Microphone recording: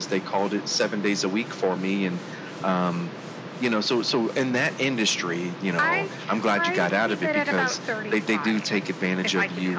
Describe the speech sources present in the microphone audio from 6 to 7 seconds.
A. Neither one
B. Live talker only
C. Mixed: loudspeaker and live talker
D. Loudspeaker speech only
D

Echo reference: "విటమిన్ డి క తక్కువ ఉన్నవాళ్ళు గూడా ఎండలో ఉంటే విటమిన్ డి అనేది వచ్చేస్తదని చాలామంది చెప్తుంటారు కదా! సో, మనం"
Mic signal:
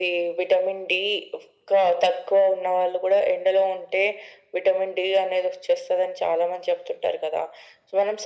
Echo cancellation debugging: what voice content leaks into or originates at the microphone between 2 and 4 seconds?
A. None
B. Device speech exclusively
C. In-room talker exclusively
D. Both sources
B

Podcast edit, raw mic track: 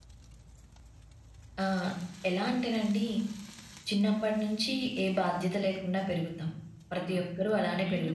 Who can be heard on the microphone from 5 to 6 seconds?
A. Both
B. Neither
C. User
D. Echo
D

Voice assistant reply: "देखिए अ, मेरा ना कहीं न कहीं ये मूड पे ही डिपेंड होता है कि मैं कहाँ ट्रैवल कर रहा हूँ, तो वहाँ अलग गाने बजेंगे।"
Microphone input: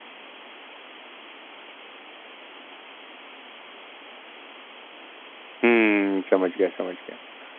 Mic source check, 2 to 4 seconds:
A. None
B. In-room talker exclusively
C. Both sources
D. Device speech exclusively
A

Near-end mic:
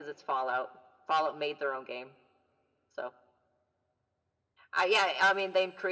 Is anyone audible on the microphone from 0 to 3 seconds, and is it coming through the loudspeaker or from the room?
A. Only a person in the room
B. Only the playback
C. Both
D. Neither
B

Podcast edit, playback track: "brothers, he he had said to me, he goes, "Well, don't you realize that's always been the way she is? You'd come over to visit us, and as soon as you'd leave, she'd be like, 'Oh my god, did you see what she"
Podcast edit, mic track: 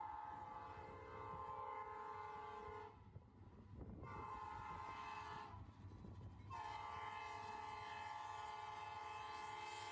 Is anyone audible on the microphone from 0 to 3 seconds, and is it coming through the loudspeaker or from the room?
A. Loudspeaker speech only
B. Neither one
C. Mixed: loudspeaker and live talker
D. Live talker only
B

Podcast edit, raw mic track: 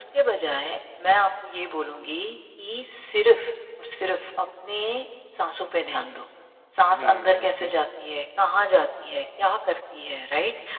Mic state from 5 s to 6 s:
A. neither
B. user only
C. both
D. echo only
D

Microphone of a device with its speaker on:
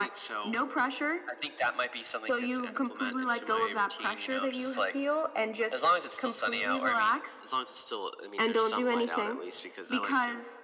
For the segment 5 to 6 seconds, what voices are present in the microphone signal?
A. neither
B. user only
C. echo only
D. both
C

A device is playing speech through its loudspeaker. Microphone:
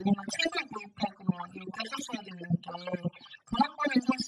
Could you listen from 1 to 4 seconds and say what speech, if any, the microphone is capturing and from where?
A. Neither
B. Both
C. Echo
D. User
C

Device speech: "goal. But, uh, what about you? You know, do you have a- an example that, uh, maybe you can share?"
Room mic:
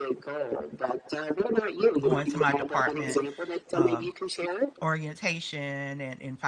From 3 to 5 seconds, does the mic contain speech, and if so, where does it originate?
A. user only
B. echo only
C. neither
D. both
D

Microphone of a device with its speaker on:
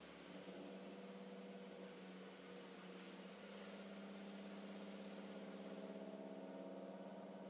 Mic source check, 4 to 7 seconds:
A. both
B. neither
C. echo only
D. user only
B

